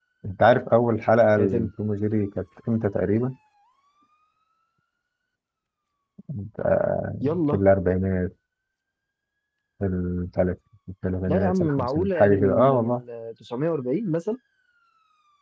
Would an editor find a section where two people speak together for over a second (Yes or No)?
Yes